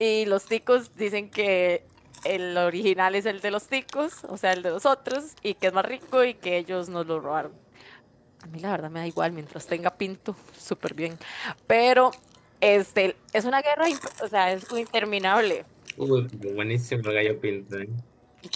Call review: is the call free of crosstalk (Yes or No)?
Yes